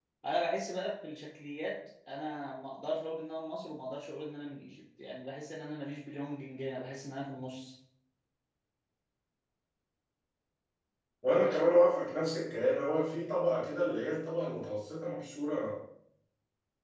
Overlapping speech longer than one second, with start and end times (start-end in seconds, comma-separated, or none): none